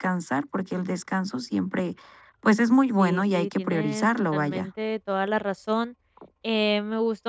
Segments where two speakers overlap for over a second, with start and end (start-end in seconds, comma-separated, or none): 3.0-4.7